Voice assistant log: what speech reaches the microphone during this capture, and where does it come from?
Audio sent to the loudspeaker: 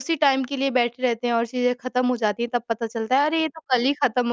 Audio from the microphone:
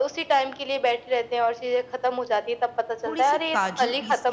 both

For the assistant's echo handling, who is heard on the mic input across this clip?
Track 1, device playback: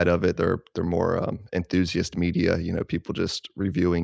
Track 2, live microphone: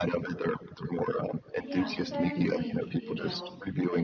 both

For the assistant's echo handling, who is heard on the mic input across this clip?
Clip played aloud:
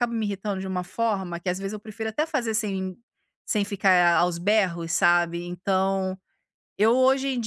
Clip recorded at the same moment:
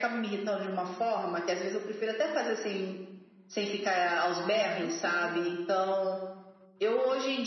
both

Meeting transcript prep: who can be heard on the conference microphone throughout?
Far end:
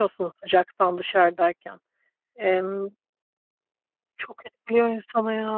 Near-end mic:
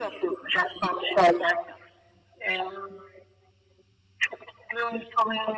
echo only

